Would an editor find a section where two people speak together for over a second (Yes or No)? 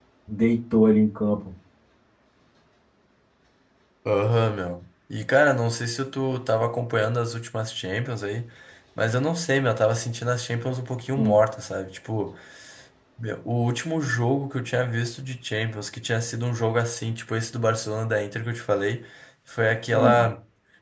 No